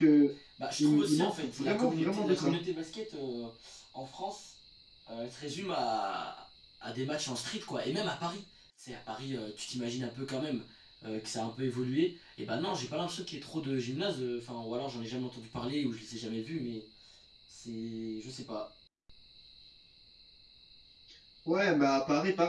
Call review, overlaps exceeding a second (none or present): present